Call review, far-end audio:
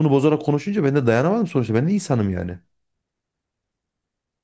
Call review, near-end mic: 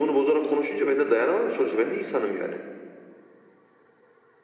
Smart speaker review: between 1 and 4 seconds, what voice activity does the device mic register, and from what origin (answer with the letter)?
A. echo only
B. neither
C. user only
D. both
A